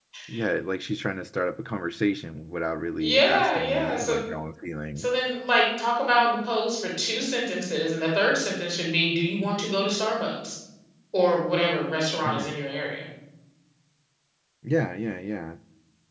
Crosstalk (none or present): present